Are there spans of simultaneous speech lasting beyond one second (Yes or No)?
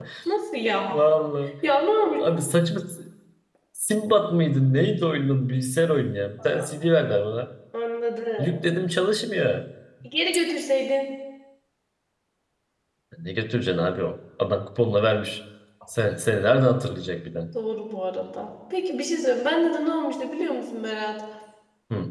No